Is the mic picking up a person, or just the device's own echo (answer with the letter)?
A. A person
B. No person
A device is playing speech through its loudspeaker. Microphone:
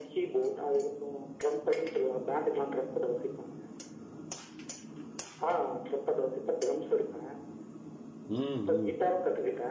A